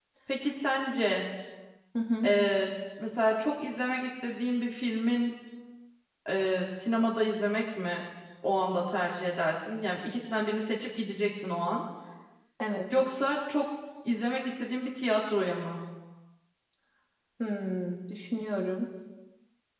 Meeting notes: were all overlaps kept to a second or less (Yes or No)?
Yes